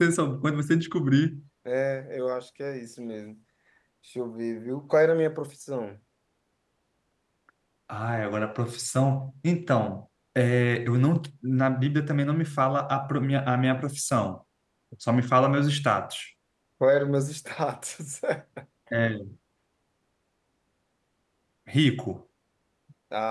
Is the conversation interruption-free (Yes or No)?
Yes